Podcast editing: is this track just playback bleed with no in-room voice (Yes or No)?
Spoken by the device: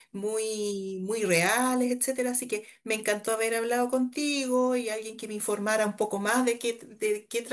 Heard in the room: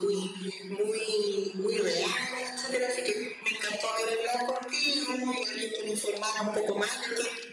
Yes